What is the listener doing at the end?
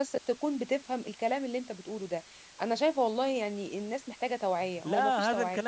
taking over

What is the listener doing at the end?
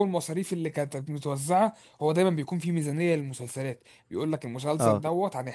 listening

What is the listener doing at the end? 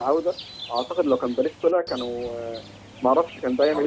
listening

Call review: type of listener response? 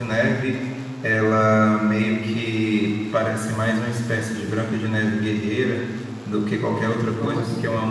listening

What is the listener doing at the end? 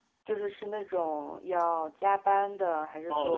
taking over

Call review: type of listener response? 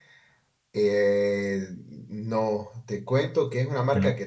listening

